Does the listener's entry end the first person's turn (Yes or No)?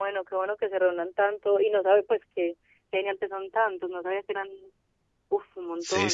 Yes